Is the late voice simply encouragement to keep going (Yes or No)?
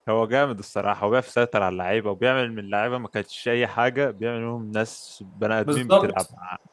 No